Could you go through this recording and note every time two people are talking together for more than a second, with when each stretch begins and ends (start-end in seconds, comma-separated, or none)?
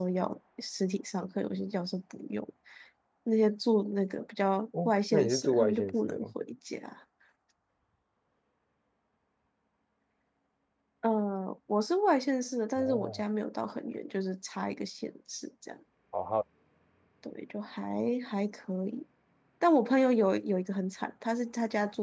4.8-6.3